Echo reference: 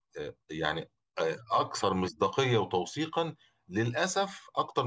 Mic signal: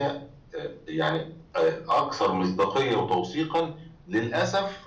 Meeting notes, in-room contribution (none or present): none